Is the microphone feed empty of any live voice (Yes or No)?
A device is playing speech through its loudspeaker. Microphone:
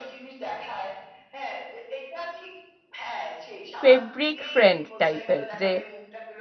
No